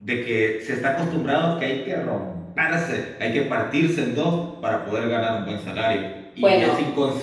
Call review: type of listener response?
listening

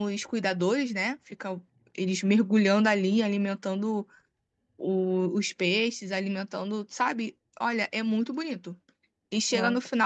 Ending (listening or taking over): listening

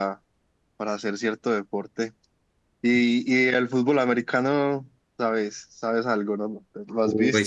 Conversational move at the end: taking over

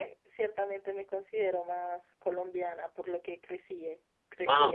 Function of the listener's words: taking over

